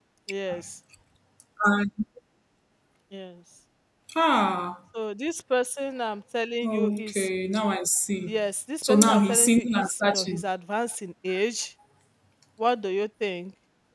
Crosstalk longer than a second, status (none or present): present